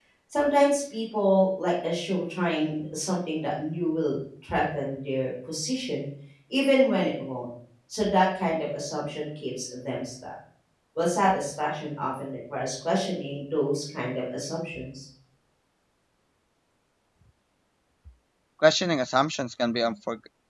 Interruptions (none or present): none